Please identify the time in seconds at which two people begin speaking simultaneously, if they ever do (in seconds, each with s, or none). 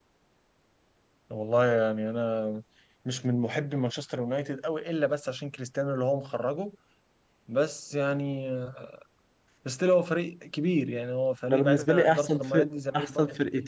11.5 s